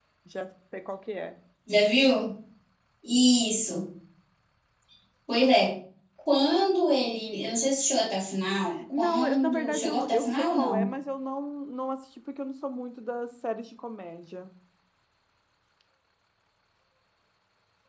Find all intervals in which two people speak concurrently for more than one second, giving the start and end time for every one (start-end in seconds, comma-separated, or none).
8.9-10.9